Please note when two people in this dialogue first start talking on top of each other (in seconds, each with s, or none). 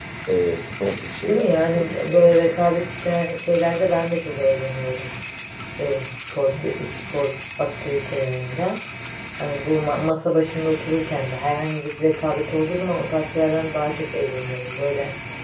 1.3 s